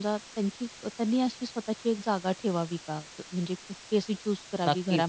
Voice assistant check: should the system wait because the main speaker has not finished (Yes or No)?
No